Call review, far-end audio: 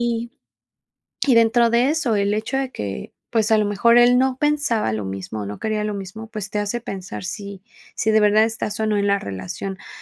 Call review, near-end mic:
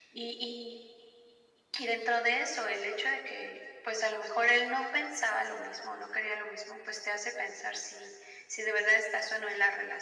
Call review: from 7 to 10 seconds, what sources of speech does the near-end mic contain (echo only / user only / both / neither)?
echo only